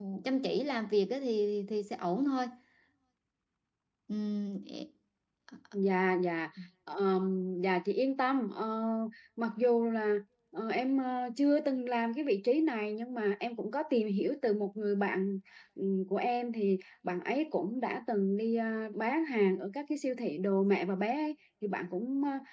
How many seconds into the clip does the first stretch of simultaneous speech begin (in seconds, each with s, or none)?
none